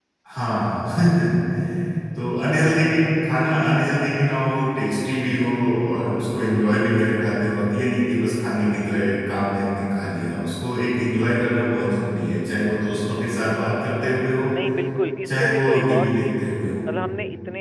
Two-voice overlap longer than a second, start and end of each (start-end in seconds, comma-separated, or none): 15.2-16.4